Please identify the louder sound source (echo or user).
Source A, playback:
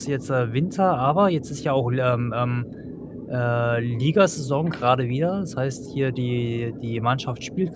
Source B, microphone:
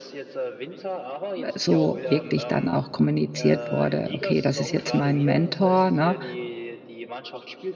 user